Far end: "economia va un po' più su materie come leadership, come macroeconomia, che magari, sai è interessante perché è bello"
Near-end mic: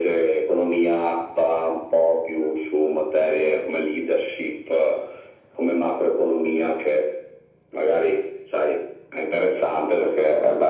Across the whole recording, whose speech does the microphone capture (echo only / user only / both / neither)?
echo only